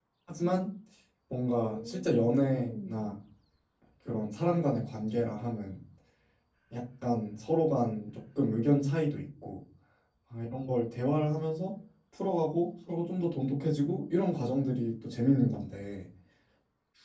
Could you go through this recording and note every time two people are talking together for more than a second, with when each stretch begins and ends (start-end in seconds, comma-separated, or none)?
1.6-3.1